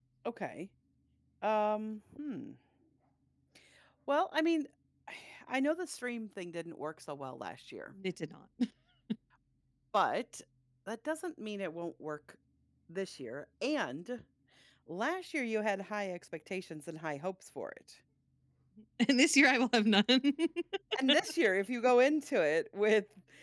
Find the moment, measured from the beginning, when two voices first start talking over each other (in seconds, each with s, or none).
none